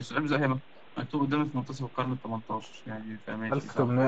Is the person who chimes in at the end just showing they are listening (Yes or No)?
No